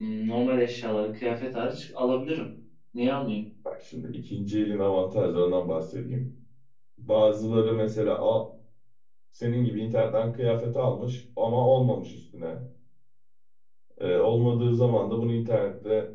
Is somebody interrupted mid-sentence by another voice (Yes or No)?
No